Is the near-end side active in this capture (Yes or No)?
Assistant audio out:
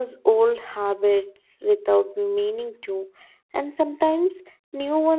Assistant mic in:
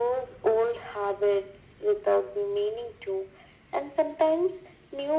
No